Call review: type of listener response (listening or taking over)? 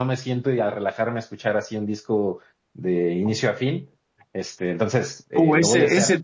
taking over